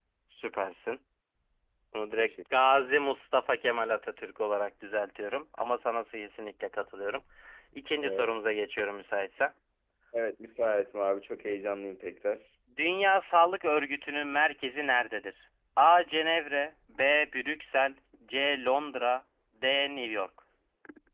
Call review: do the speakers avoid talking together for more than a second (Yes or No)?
Yes